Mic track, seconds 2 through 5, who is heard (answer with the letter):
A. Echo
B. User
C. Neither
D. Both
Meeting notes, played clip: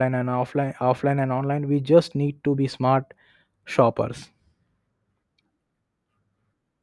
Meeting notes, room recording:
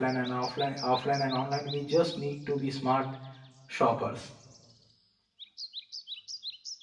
A